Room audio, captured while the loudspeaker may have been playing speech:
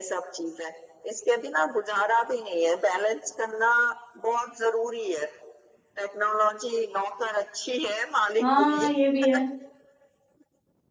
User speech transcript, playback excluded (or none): ہاں یہ بھی ہے